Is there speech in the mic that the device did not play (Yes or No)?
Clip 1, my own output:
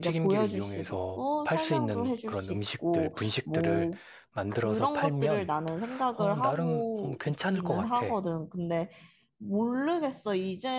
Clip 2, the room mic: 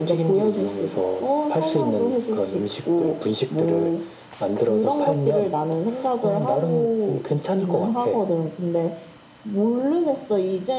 No